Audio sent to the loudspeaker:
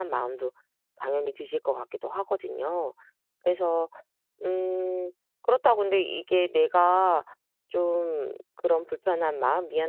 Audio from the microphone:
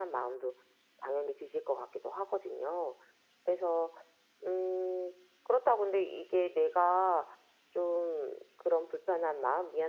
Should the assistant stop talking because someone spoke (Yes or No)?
No